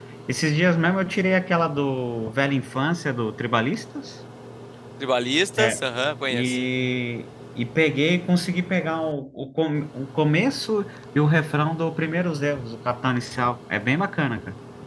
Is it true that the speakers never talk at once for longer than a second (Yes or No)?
Yes